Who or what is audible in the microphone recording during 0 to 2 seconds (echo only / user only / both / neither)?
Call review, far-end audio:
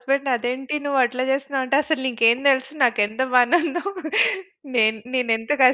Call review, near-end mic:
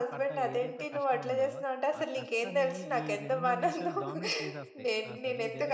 both